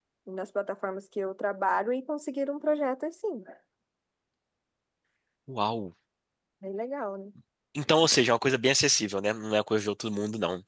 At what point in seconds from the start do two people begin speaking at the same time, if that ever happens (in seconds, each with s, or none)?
none